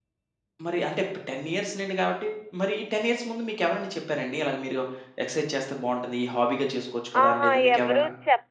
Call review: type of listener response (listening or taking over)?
taking over